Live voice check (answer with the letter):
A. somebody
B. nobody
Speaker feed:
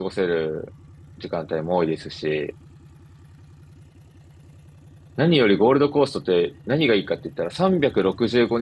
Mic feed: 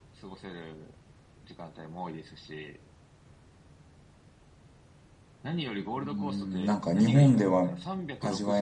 A